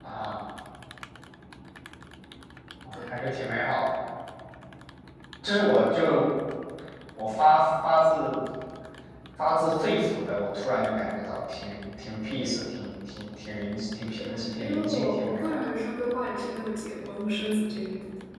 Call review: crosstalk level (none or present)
present